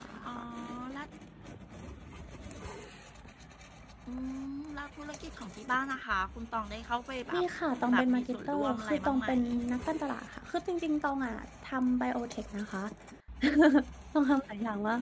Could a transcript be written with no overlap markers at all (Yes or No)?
No